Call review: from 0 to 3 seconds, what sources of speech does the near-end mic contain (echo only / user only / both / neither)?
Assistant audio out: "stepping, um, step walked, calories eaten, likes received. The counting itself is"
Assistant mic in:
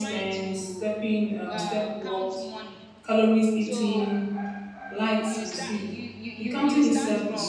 both